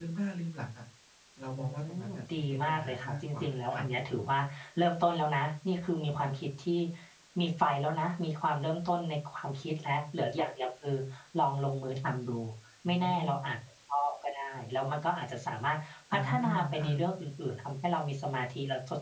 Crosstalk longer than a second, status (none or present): present